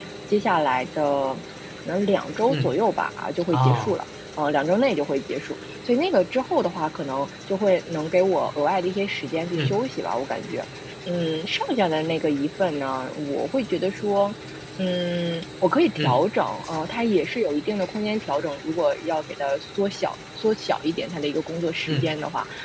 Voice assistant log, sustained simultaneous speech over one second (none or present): none